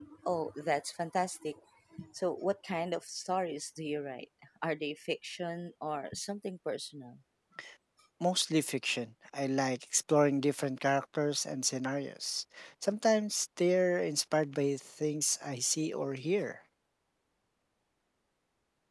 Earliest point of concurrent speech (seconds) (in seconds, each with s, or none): none